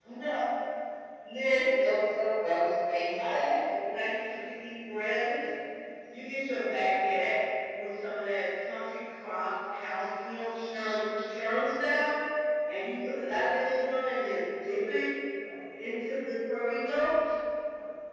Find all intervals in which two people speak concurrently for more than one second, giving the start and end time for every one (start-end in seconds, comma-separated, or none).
none